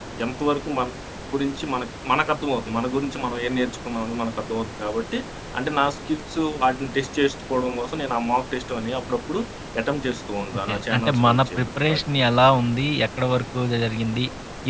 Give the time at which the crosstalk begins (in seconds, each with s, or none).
10.7 s